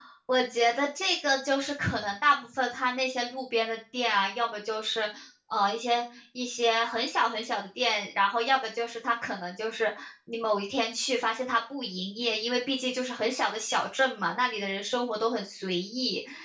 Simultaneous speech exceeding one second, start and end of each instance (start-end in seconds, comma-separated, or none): none